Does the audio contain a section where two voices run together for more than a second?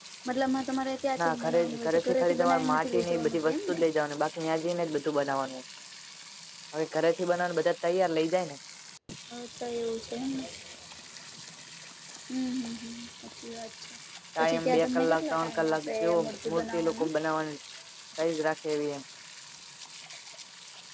Yes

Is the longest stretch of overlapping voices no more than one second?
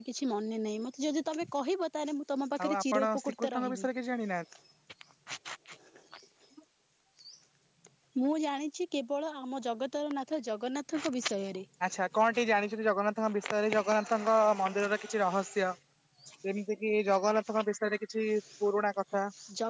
No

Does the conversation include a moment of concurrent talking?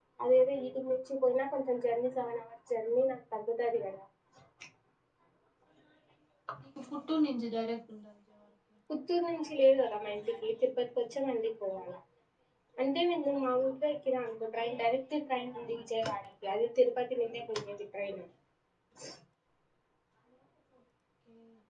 No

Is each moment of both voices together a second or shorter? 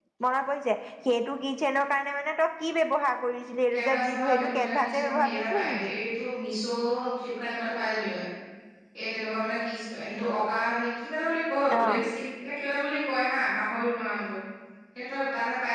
No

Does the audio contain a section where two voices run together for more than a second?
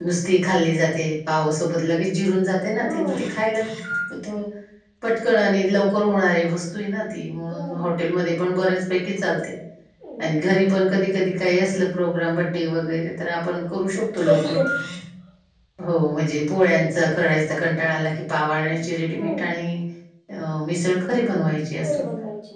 No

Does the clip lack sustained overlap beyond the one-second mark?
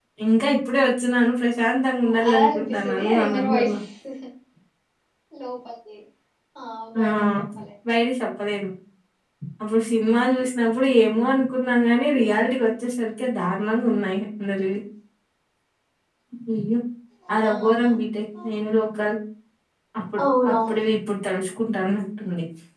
No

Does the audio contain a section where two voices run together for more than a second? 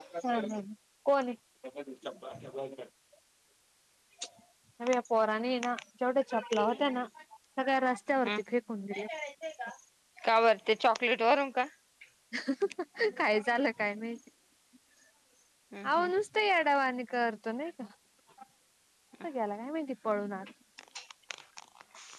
No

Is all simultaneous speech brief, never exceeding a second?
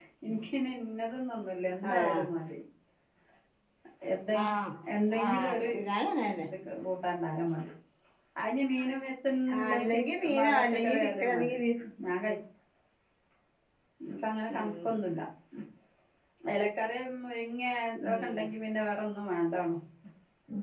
No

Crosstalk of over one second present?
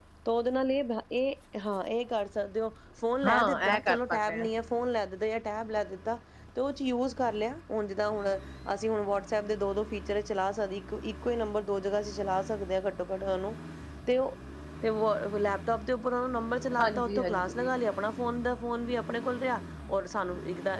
Yes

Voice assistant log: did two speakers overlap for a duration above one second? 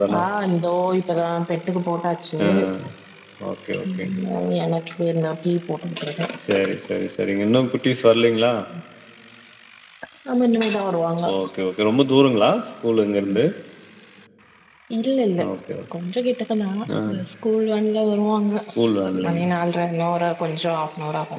No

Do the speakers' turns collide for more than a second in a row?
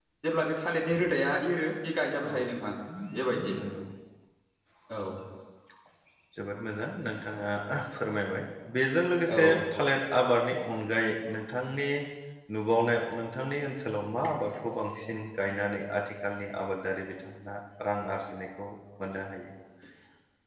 No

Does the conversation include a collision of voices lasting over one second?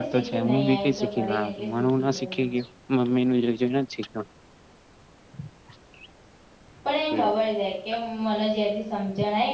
Yes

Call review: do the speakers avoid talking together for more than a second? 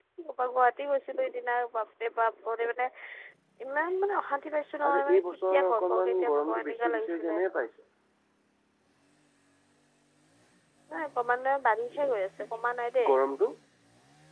No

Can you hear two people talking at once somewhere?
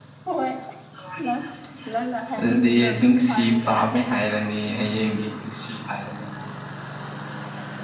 Yes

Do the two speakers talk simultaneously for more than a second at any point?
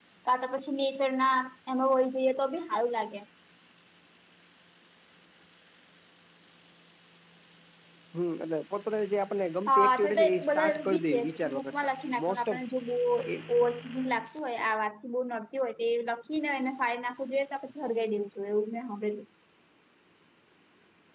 Yes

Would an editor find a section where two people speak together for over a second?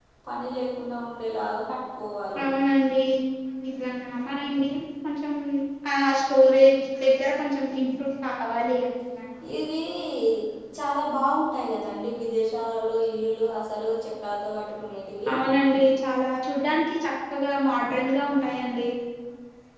No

